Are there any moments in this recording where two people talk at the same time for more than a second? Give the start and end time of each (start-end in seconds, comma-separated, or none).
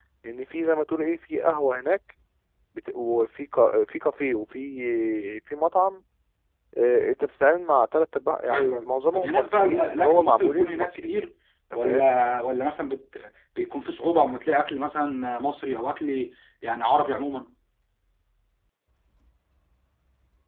8.5-11.3